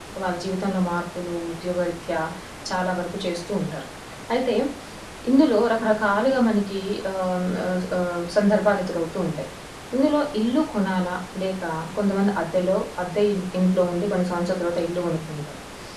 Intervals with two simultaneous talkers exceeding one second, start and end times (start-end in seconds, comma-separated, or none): none